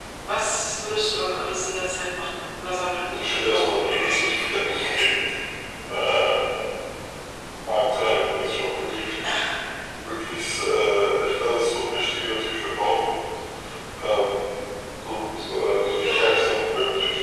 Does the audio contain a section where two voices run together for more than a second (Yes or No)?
Yes